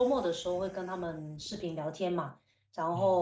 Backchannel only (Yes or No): Yes